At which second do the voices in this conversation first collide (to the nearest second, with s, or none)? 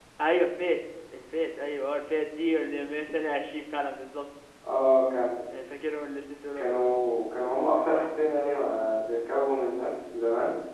none